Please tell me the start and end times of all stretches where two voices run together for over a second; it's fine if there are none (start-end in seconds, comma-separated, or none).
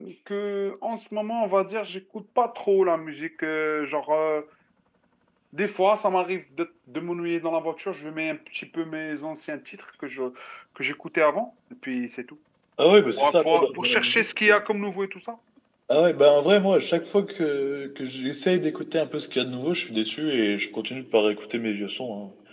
13.2-14.6